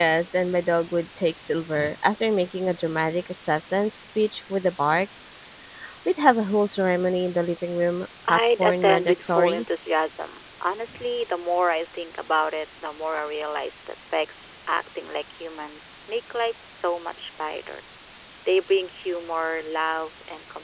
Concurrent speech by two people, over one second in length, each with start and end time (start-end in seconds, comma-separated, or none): 8.3-9.6